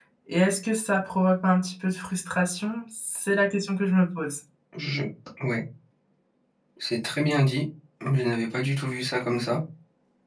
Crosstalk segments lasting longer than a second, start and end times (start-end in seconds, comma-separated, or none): none